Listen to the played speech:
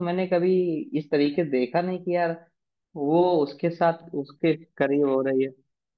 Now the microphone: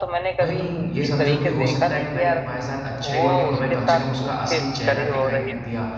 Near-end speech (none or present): present